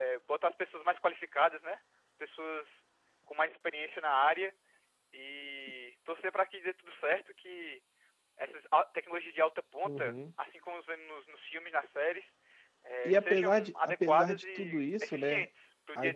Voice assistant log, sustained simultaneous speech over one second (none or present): present